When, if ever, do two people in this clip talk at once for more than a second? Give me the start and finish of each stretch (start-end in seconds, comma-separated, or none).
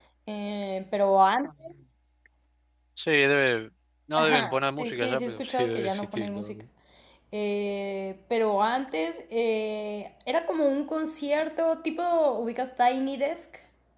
4.2-6.5